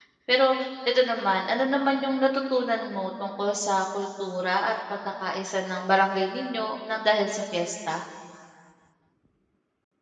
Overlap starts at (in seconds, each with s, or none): none